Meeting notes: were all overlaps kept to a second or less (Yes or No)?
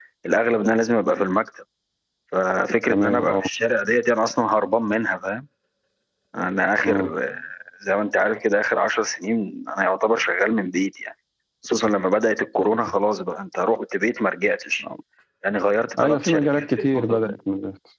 No